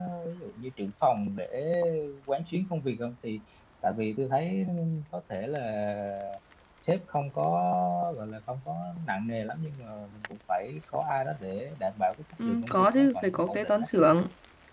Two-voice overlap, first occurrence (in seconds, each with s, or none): 12.4 s